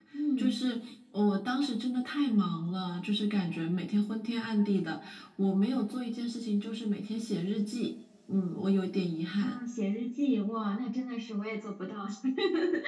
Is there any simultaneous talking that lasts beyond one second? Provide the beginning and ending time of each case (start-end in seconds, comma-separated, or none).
none